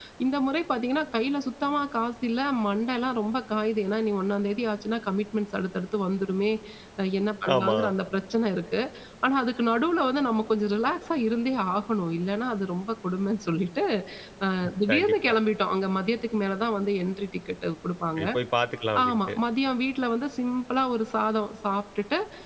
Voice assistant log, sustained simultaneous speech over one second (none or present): none